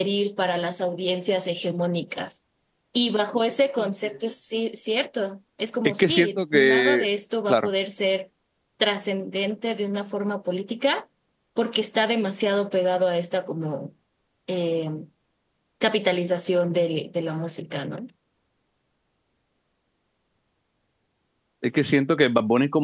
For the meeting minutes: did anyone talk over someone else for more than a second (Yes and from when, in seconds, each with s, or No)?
Yes, from 5.8 s